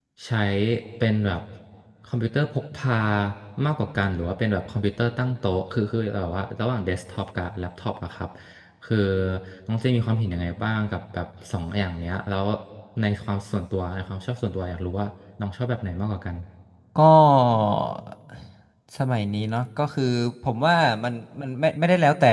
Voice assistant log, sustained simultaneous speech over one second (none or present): none